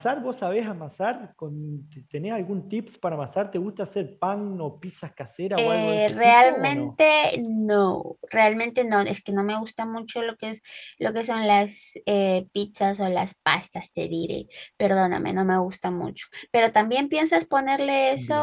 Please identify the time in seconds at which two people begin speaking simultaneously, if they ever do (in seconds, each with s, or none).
5.6 s